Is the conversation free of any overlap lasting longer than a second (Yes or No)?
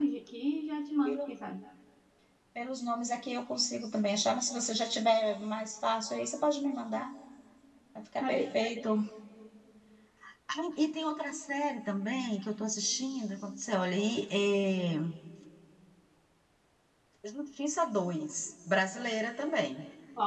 Yes